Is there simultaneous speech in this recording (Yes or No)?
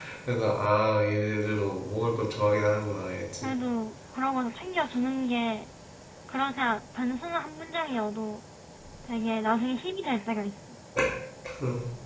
No